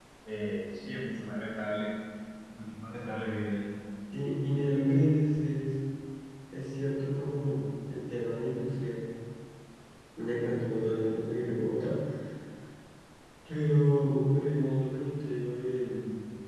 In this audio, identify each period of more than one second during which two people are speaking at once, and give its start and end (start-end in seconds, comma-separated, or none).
none